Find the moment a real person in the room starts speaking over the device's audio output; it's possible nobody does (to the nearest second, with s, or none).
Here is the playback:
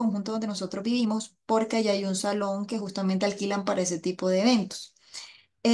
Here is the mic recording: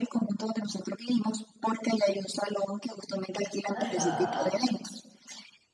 4 s